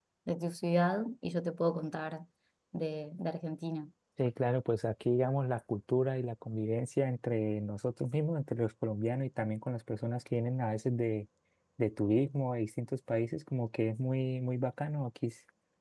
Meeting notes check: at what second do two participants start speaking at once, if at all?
none

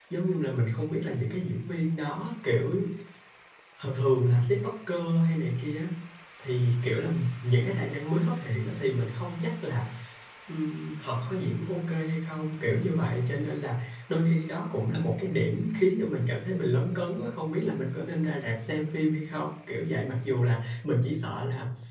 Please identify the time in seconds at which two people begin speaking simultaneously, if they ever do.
none

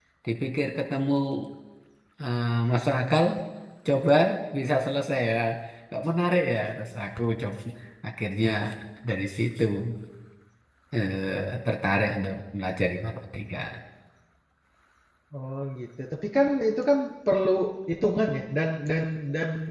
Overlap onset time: none

